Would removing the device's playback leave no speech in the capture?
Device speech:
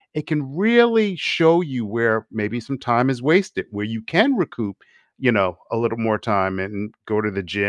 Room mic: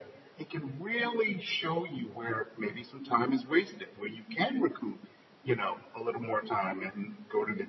Yes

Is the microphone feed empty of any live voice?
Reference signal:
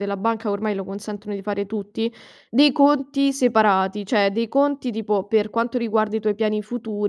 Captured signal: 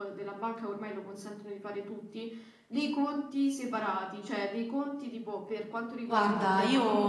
No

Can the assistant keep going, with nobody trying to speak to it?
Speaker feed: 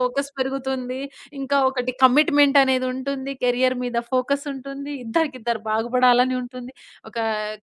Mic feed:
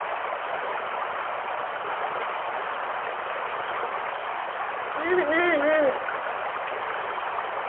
No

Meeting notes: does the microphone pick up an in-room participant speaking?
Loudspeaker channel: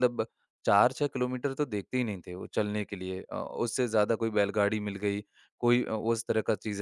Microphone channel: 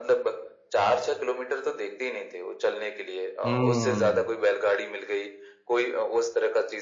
Yes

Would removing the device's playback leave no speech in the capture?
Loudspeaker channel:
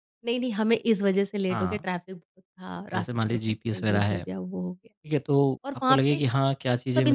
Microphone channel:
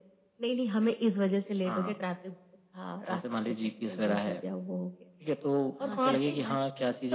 No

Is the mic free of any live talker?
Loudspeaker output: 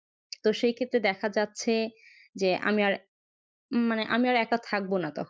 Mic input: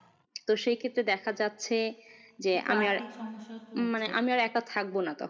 No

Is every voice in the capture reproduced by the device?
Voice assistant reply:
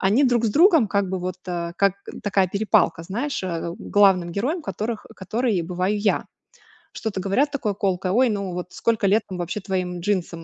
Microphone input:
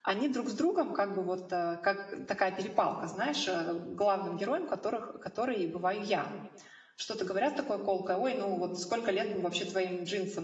Yes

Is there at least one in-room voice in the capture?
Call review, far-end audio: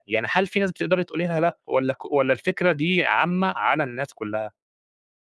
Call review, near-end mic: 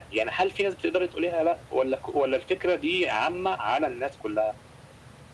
No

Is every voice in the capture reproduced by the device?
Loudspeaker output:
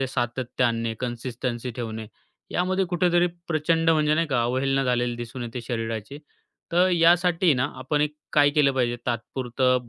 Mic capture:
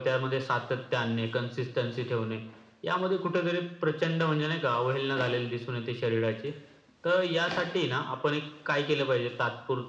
Yes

